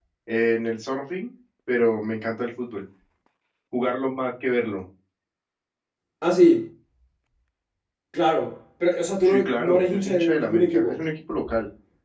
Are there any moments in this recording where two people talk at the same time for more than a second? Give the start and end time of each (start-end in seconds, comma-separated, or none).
9.2-11.0